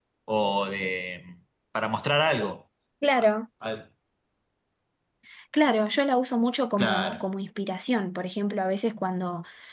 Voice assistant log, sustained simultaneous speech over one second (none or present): none